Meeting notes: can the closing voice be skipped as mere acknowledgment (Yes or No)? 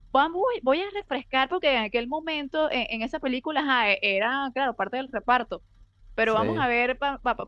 Yes